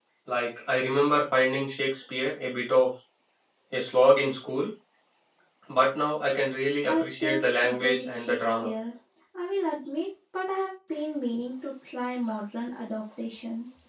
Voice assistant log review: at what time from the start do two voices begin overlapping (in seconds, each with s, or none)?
6.8 s